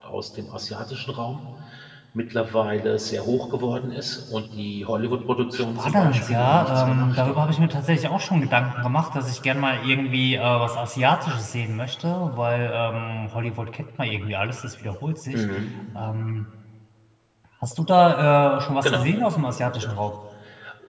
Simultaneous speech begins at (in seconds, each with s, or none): 5.5 s